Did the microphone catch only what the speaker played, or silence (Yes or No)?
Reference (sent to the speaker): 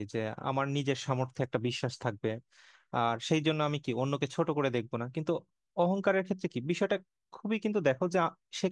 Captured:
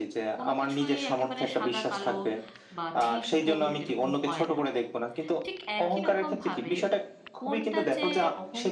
No